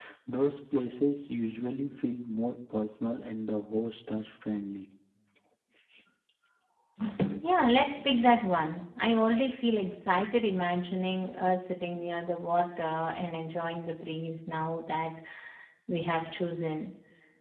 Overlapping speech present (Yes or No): No